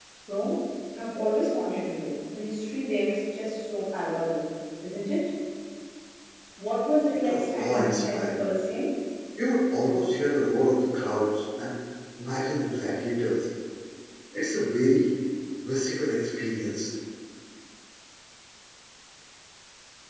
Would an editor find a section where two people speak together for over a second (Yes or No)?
Yes